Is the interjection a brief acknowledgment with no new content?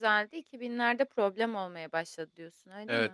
No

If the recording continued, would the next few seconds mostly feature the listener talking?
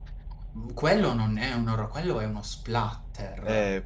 Yes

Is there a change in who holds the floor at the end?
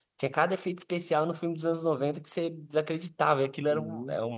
No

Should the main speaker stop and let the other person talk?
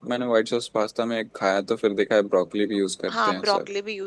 Yes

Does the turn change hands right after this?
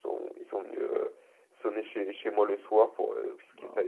No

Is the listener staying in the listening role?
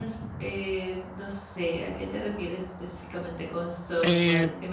No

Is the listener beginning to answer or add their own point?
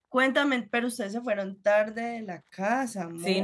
Yes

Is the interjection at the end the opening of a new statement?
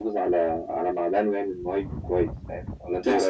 Yes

